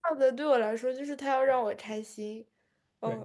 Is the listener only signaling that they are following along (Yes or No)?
No